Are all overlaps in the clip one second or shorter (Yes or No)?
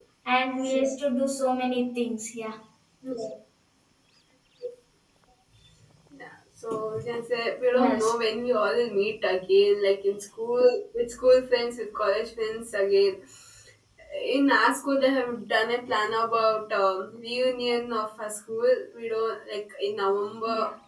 Yes